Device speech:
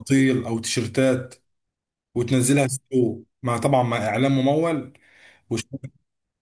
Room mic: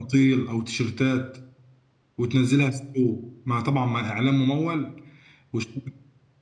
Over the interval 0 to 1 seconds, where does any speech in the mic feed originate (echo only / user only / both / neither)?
echo only